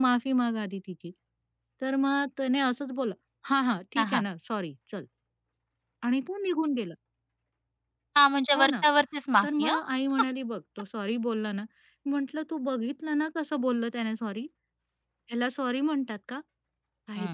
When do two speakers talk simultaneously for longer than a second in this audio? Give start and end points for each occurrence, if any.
none

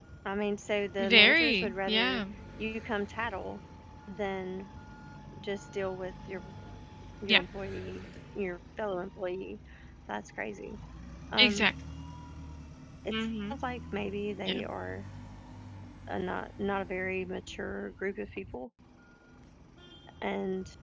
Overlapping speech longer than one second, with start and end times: 1.0-2.2

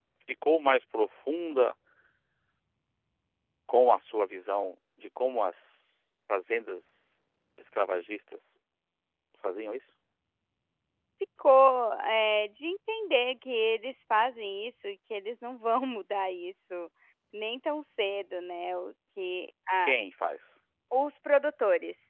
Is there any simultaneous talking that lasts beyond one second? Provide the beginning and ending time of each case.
none

